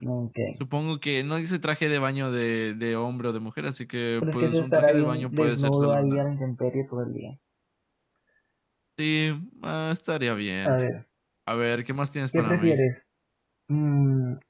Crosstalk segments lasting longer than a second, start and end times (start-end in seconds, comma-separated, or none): 4.2-6.2